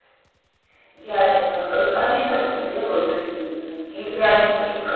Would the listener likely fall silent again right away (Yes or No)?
Yes